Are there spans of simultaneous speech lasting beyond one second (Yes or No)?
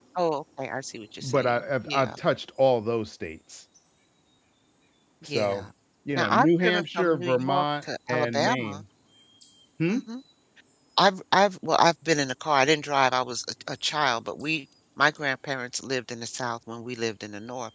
Yes